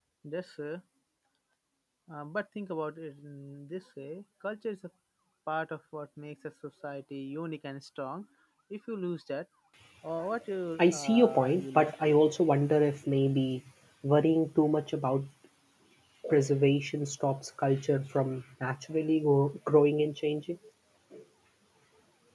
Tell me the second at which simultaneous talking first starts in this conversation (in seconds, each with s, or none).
10.8 s